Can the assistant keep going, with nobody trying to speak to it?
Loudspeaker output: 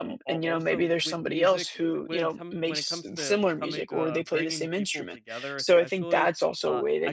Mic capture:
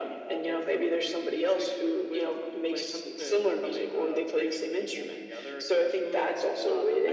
Yes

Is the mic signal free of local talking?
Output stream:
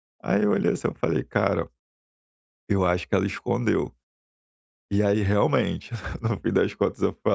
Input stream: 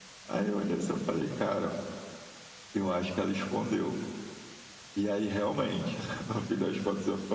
Yes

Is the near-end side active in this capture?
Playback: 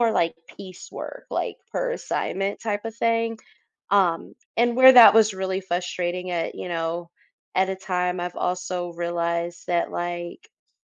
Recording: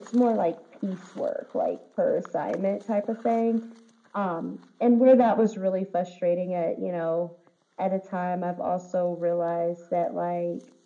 No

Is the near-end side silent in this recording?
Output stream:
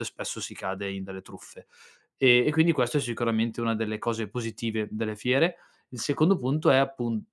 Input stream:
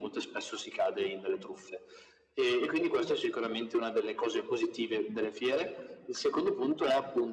Yes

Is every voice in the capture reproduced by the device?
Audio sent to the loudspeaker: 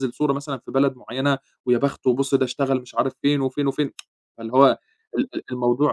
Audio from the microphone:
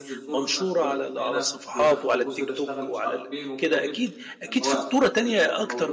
No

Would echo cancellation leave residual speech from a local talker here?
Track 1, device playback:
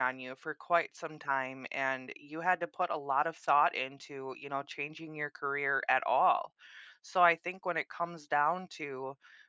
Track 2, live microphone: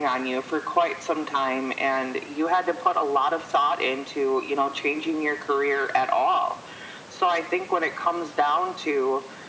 No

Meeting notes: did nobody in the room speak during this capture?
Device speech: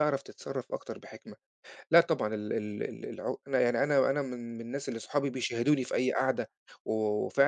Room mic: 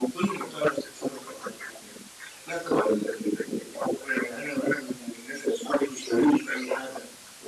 Yes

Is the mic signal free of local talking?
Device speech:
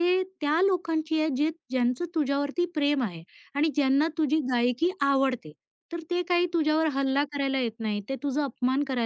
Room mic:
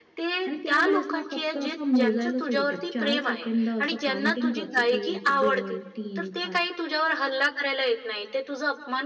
No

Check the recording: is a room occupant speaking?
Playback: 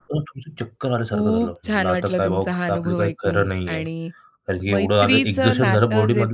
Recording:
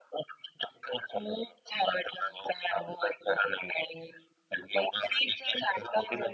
No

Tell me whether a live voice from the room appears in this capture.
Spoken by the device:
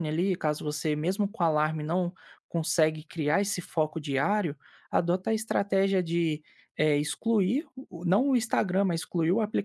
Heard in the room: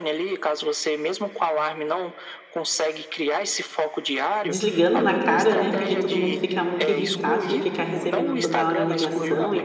Yes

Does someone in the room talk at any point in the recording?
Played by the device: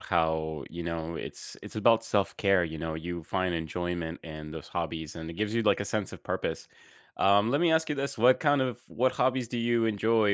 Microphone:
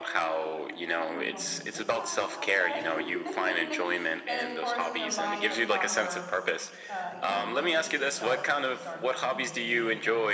Yes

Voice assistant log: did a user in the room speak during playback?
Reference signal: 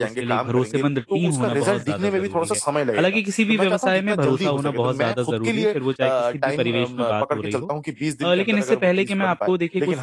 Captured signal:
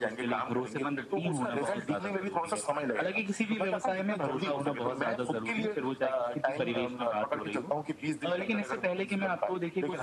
Yes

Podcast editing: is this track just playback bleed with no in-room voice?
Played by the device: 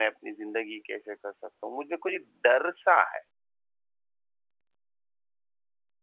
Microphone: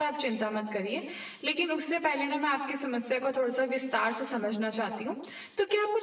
No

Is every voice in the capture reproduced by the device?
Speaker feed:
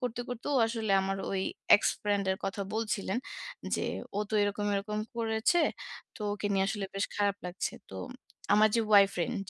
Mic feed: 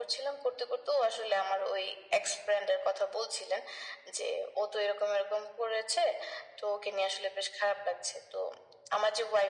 Yes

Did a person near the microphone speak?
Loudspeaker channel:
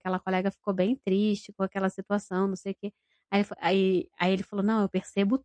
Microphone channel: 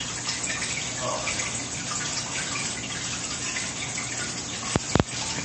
No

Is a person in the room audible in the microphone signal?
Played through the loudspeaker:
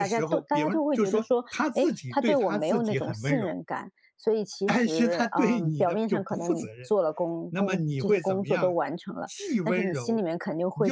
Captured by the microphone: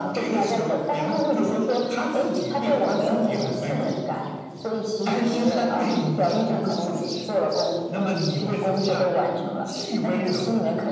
No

